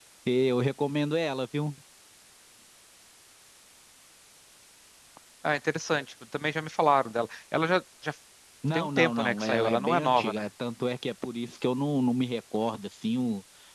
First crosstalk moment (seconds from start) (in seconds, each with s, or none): 8.7 s